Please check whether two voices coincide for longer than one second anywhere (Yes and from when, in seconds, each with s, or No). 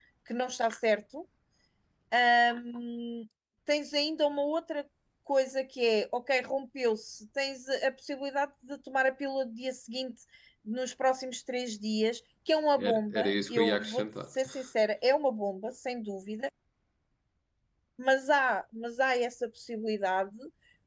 Yes, from 12.8 s